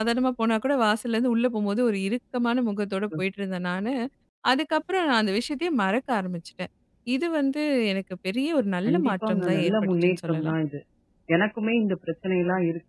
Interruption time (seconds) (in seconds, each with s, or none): 8.8 s